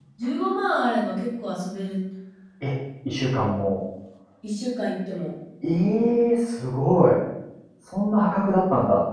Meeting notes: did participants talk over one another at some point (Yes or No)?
No